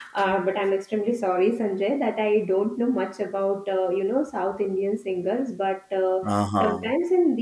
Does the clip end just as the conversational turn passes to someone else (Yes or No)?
No